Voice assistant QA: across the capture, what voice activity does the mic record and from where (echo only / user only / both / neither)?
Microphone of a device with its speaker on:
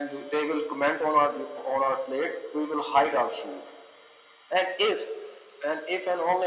echo only